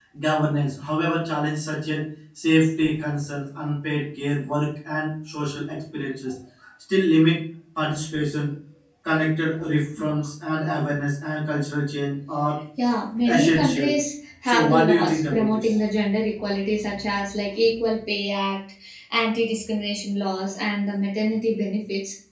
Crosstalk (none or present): present